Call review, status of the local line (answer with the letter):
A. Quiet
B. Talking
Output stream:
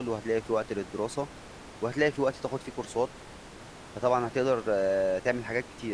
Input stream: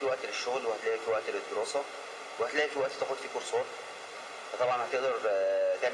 A